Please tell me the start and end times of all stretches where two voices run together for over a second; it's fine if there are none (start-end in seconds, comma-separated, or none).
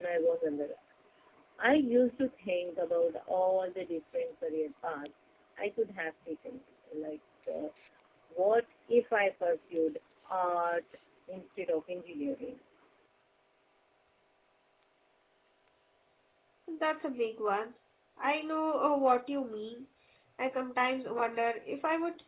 none